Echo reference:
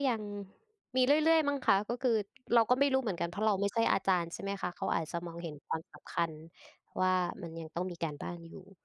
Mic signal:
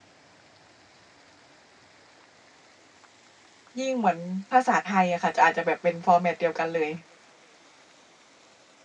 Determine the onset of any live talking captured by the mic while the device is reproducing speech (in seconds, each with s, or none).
3.8 s